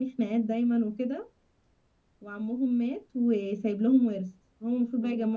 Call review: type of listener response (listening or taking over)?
listening